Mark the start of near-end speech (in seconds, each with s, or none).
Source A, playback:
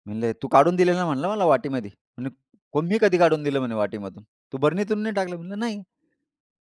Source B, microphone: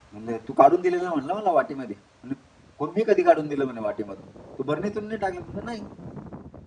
none